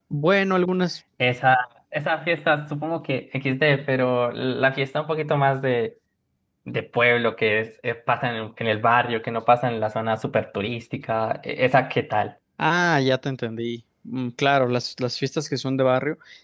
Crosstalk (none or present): none